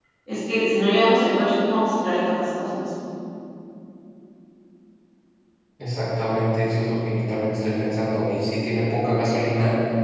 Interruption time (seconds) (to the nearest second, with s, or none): none